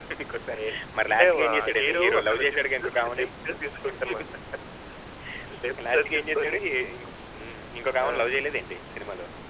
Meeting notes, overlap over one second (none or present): present